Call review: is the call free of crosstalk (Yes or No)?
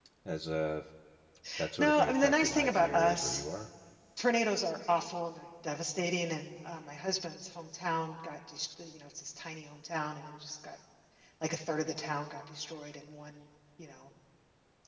No